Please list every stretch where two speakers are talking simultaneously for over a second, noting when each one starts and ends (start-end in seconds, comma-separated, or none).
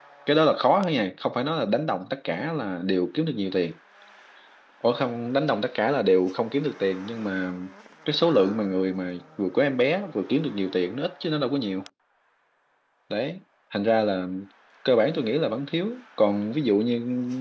none